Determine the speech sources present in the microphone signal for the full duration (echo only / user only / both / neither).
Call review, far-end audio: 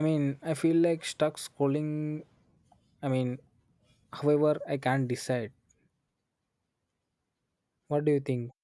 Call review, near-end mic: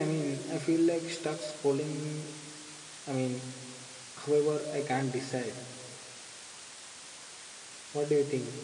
echo only